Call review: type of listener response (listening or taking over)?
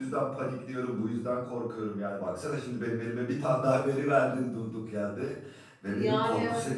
listening